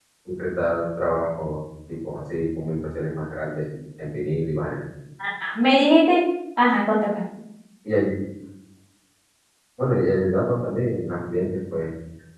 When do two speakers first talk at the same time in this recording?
none

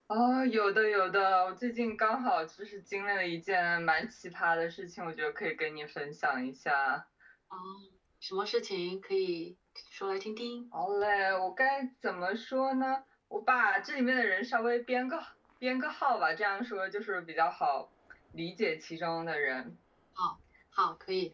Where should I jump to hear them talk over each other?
none

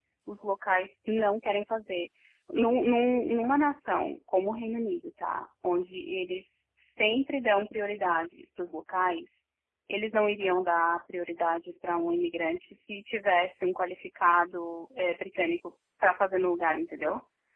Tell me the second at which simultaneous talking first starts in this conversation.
none

